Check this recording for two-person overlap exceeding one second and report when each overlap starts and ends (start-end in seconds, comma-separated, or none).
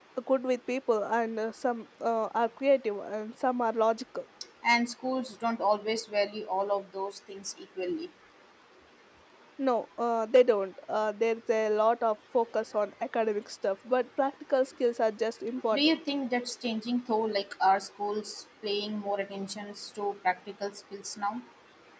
none